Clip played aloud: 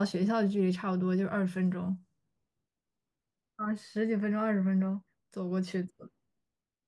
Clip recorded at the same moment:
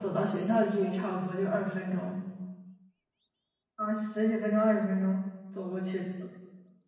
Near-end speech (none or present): none